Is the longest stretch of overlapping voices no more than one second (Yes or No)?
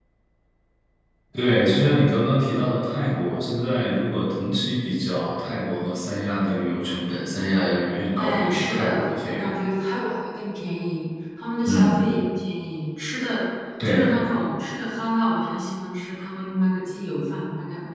No